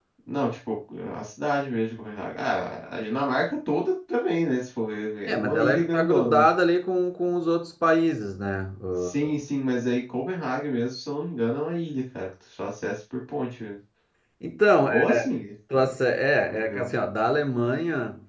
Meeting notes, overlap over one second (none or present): present